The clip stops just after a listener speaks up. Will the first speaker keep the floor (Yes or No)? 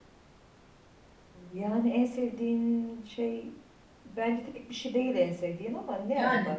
No